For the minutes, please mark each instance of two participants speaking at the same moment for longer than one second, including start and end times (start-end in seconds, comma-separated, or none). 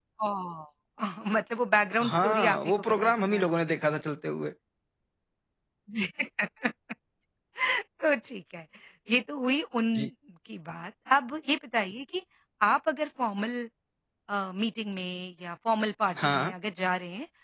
2.0-3.5